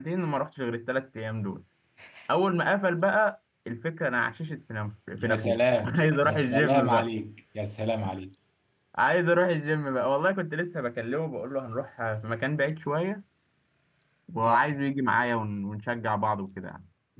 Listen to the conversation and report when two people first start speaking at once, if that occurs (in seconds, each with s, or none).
5.2 s